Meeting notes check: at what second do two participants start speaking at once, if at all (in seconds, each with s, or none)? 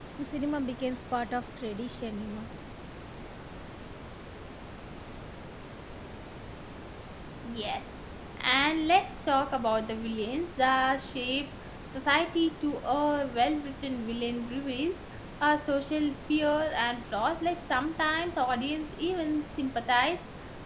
none